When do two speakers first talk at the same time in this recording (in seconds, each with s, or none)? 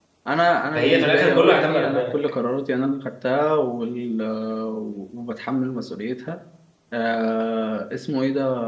0.8 s